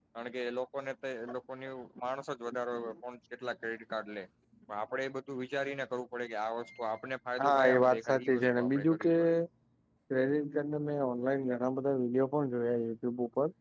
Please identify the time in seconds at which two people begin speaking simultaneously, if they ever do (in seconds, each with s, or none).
7.4 s